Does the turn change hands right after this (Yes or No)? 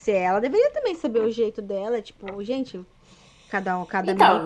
Yes